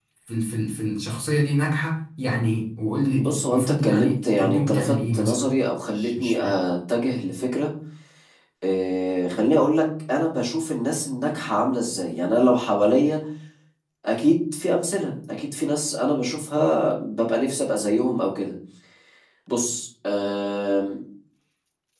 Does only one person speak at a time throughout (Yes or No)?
No